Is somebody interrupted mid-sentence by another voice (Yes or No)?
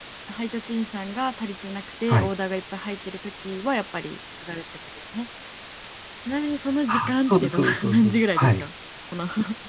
Yes